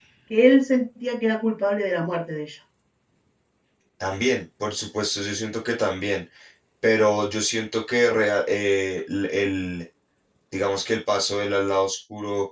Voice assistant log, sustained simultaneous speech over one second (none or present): none